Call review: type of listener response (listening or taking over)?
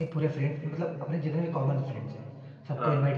listening